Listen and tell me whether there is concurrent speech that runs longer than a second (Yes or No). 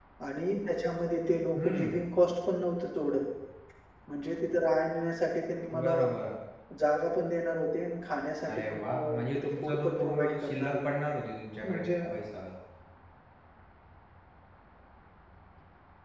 Yes